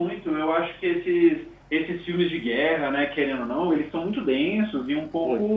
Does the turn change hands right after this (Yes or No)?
No